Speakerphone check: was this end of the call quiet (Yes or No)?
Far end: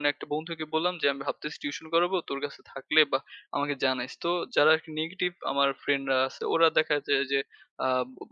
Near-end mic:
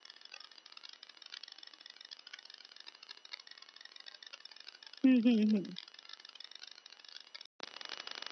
No